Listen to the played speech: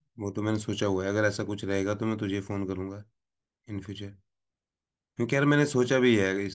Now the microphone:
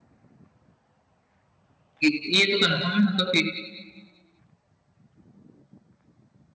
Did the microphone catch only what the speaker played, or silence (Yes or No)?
No